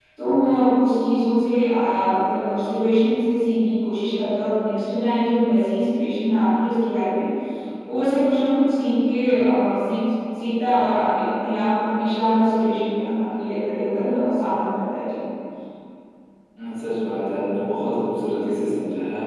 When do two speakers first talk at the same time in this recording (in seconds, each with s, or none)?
none